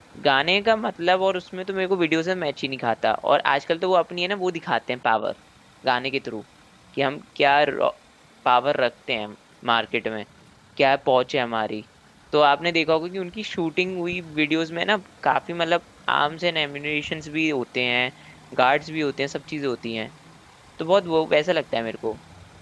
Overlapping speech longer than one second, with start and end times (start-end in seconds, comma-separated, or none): none